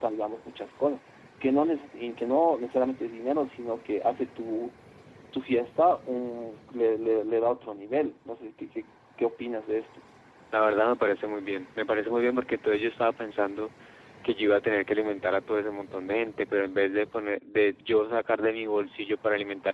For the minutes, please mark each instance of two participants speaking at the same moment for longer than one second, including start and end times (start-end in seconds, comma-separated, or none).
none